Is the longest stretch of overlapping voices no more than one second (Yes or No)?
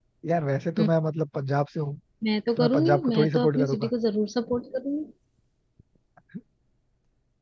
No